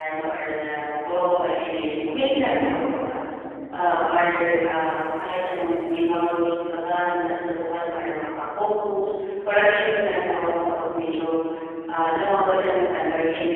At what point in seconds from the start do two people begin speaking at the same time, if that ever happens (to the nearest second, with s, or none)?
none